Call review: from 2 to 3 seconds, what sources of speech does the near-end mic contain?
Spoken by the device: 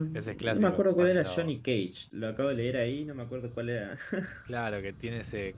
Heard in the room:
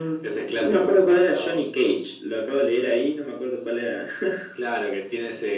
echo only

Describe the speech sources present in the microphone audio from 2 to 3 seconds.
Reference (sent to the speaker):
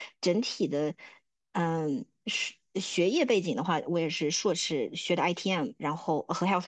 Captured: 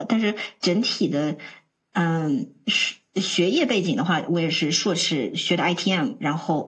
echo only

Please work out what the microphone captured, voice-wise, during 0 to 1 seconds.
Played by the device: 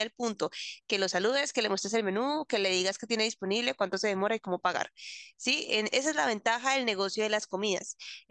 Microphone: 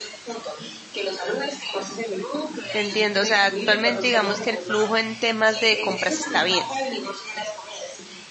echo only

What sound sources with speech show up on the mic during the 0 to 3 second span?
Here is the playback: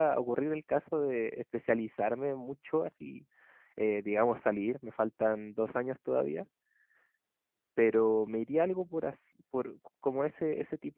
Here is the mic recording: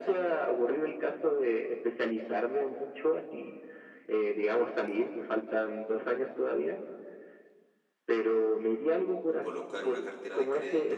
echo only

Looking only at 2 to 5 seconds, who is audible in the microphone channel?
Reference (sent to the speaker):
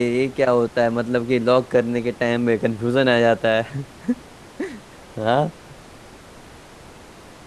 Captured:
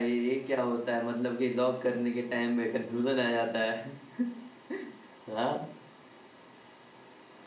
echo only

